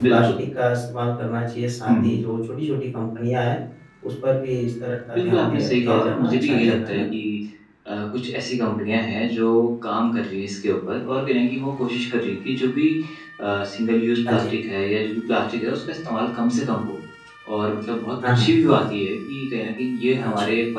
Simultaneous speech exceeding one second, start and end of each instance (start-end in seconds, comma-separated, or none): 5.1-7.0